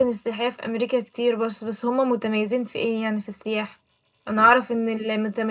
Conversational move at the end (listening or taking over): listening